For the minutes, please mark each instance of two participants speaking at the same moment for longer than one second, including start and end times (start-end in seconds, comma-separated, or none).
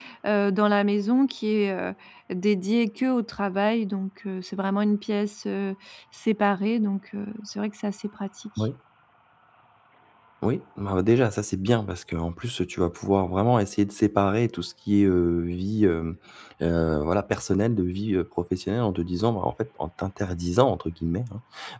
none